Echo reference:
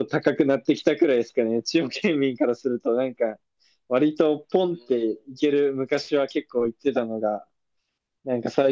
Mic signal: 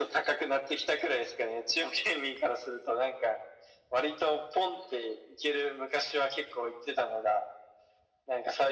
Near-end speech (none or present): none